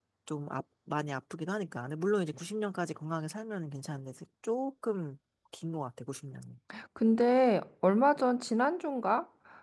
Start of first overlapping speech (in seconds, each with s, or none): none